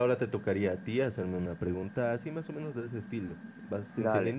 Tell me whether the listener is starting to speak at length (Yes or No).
Yes